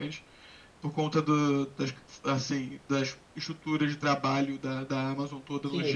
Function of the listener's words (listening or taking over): taking over